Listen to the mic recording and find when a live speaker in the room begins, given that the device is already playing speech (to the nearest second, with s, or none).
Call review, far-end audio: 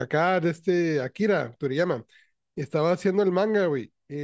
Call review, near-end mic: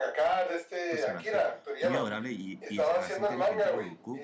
1 s